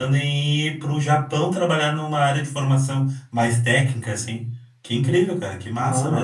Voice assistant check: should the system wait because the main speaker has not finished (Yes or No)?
No